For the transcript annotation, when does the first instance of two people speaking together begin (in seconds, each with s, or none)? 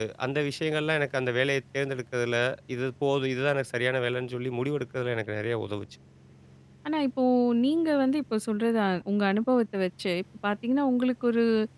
none